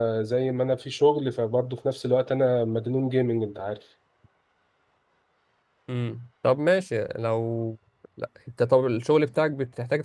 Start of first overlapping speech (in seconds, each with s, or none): none